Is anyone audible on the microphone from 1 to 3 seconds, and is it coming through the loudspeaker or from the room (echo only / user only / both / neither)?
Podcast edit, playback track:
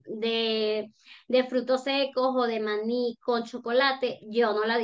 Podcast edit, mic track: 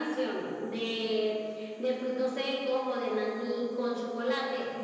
echo only